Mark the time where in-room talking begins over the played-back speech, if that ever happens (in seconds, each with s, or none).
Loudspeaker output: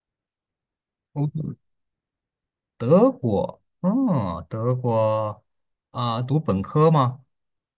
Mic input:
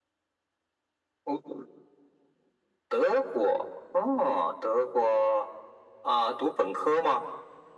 none